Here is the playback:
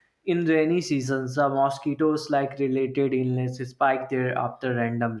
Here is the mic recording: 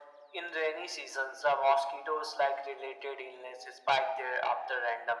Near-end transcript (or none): none